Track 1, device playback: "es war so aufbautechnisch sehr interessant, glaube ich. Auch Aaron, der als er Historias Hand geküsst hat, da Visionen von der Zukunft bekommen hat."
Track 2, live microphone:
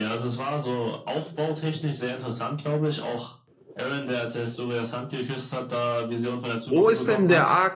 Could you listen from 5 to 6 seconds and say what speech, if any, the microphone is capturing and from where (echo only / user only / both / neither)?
echo only